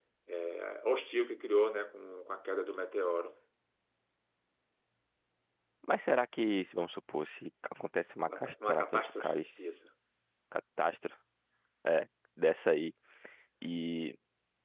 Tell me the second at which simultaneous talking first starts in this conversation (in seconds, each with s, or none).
8.3 s